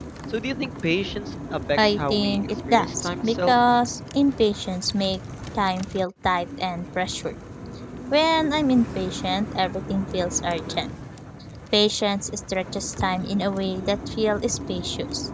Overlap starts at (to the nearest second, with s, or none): 2 s